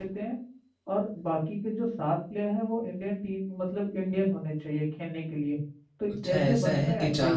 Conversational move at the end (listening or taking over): taking over